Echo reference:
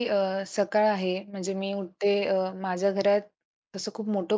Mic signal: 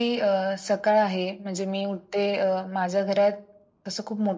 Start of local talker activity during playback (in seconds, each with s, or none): none